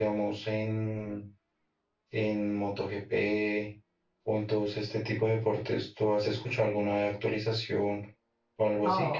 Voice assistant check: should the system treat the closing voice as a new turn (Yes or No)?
Yes